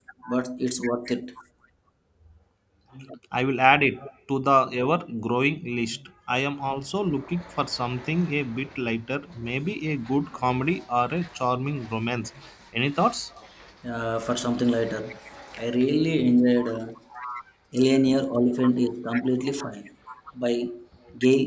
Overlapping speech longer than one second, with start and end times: none

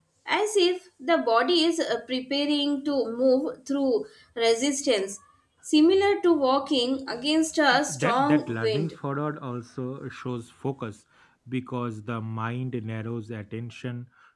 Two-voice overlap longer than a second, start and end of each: 7.7-8.9

